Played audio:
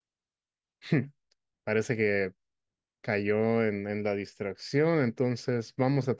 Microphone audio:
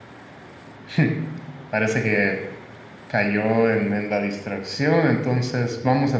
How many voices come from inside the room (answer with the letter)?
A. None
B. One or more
A